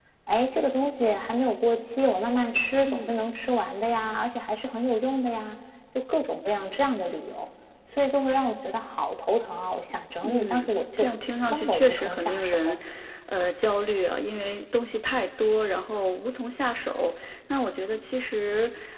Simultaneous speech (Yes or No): Yes